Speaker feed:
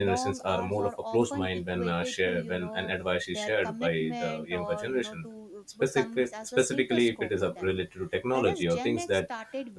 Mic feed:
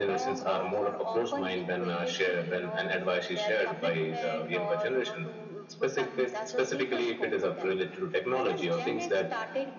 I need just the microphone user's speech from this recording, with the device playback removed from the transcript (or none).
none